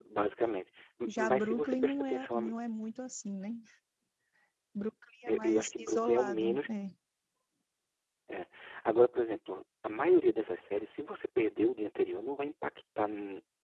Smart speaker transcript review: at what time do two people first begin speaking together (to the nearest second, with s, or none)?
1 s